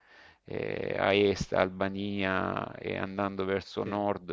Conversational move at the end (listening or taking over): listening